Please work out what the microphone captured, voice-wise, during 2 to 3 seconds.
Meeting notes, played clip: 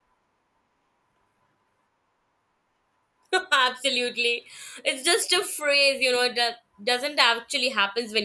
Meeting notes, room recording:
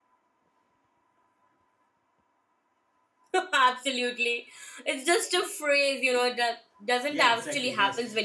neither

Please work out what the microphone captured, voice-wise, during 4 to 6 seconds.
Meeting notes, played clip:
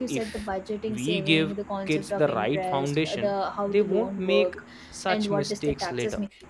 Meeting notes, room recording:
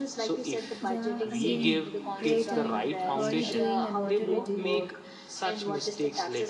both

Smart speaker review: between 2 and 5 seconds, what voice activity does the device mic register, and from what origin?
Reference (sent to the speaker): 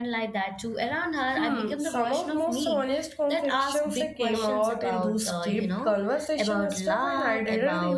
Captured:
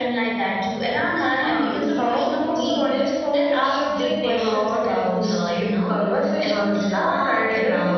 echo only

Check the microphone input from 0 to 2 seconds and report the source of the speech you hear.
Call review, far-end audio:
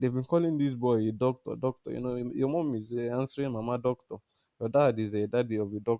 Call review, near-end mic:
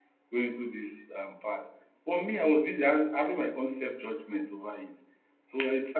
user only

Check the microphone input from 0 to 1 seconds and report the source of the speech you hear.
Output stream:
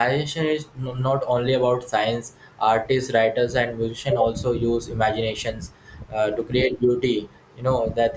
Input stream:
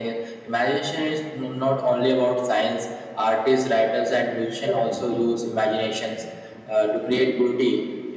echo only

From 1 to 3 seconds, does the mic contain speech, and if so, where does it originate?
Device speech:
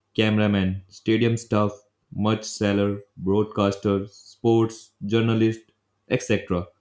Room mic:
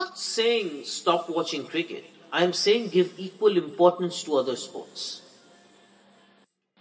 user only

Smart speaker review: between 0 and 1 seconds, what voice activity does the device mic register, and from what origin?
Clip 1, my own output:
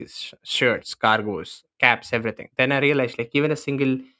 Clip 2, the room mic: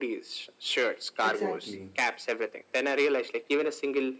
echo only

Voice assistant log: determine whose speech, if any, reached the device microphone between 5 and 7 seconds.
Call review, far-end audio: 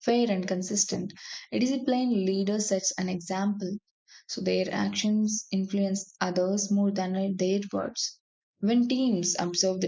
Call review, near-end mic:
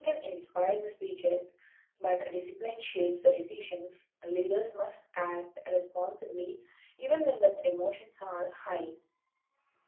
user only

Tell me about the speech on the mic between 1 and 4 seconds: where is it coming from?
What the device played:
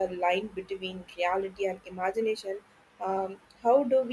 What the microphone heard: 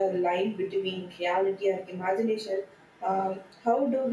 echo only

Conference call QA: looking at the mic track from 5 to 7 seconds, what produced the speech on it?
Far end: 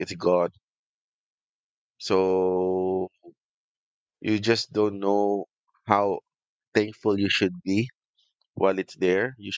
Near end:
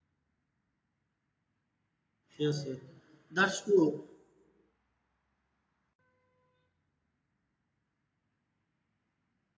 neither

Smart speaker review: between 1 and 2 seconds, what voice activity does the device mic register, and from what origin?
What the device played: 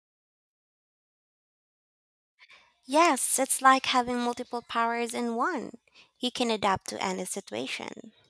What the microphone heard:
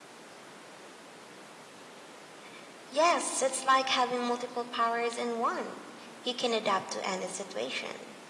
neither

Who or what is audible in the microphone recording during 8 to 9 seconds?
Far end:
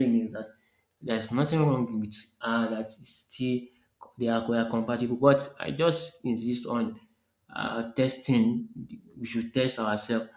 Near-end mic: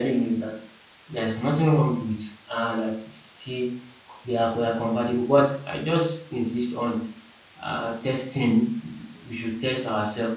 echo only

